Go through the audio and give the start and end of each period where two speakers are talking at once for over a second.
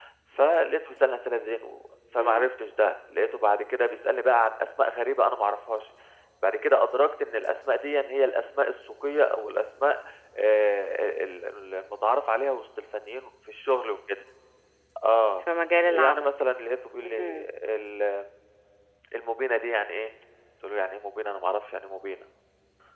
none

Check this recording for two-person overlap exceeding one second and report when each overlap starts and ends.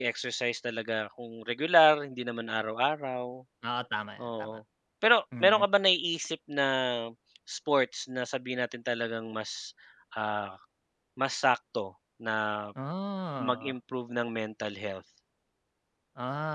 none

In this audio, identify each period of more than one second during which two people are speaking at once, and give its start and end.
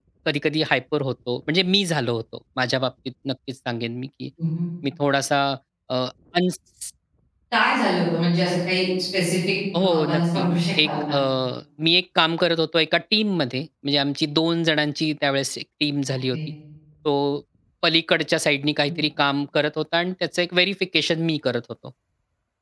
9.8-11.2

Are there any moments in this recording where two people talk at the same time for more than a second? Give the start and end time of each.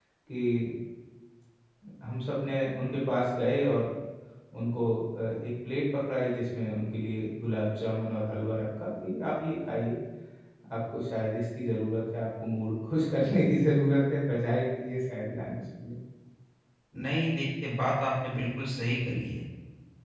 none

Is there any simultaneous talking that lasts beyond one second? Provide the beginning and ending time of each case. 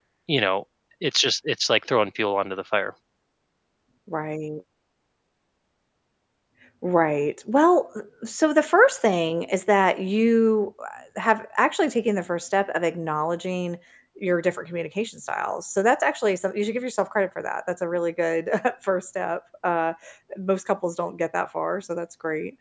none

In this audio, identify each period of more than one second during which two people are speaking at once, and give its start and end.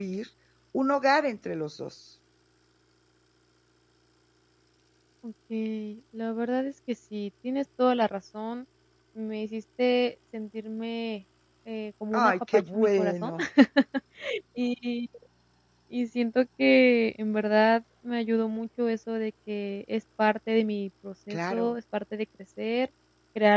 12.1-13.3

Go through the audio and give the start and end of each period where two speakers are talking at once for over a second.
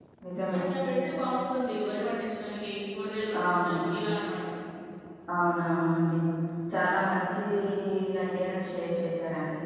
none

